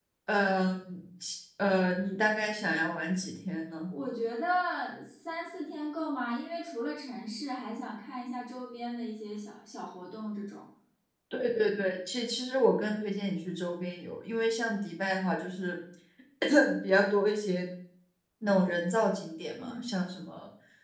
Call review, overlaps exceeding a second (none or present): none